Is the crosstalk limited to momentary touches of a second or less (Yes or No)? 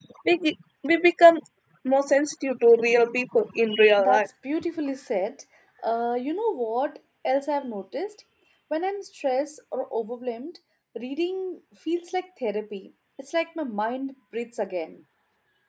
Yes